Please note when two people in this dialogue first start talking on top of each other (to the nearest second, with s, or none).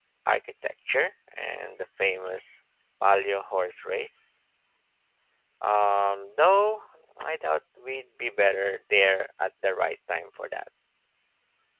none